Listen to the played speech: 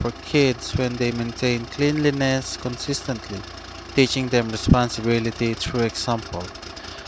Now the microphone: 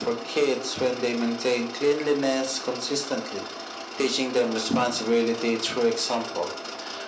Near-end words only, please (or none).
none